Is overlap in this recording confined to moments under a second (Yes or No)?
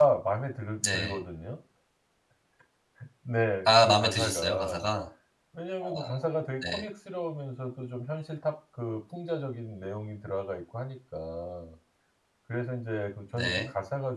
No